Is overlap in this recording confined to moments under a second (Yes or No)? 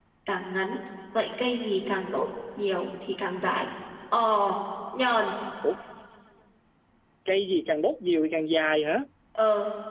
Yes